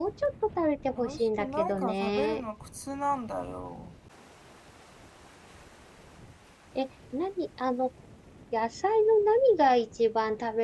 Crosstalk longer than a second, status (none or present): present